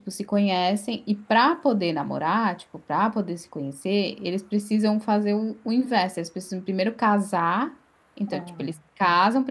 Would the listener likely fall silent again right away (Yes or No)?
Yes